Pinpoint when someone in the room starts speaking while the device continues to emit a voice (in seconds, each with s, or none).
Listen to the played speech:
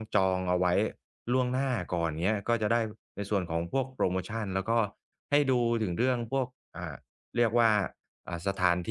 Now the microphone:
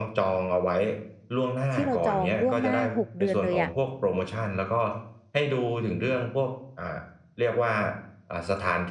1.7 s